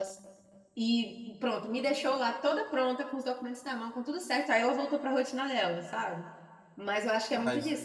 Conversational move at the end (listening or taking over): listening